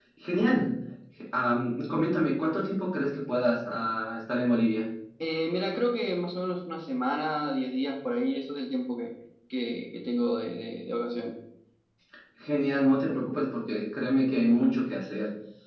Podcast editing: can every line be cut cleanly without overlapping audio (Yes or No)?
Yes